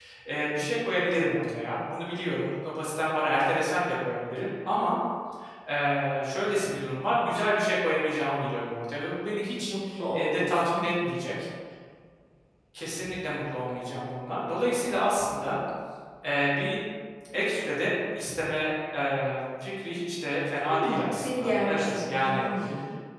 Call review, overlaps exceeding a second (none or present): present